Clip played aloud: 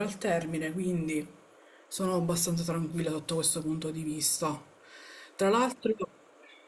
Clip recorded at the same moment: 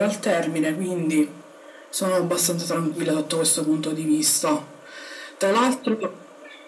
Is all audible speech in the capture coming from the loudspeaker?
Yes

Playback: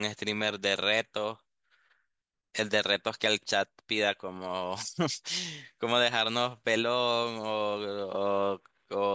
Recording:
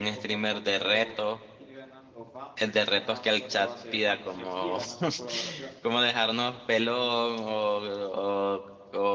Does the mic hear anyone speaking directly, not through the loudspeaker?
Yes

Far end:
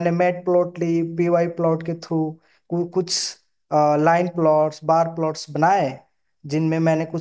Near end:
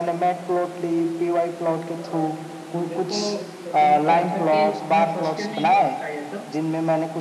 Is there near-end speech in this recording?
Yes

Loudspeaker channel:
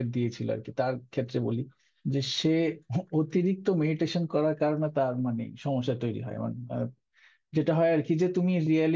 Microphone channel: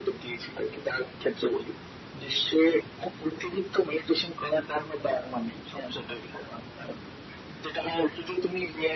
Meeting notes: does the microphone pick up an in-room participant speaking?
No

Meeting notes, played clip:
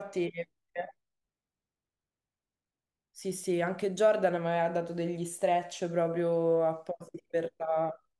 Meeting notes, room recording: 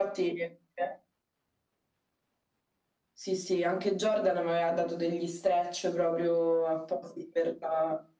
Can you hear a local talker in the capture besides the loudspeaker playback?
No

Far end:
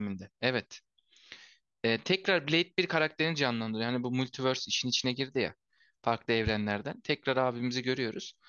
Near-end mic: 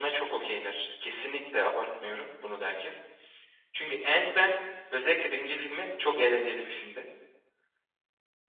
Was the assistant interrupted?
Yes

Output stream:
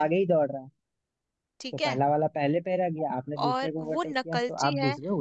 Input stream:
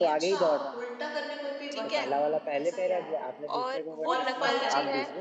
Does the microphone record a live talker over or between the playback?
Yes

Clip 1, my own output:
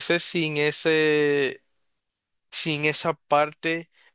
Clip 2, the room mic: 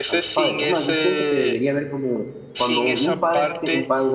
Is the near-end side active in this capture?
Yes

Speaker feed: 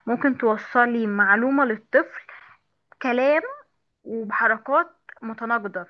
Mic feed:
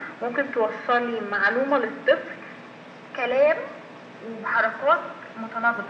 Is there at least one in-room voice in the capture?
No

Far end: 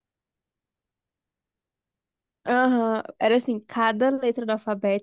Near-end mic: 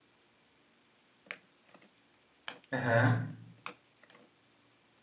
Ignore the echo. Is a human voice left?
Yes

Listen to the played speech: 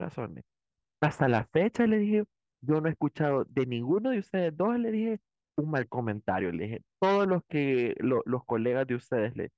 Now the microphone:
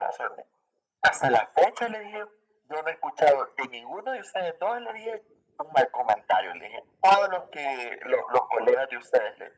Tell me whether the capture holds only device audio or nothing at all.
Yes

